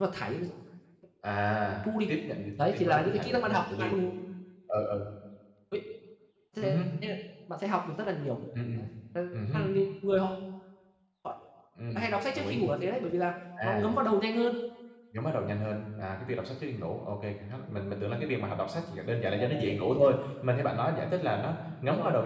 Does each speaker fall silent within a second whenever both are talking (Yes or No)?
No